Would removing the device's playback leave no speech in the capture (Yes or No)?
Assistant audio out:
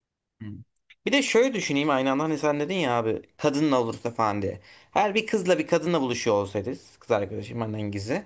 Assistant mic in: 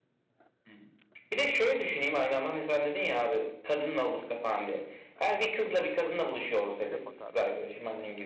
No